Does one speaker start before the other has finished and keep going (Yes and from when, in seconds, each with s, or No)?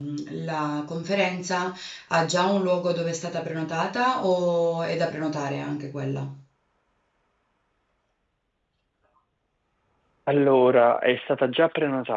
No